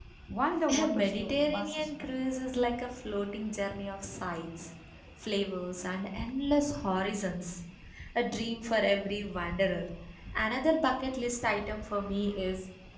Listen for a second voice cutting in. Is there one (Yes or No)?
Yes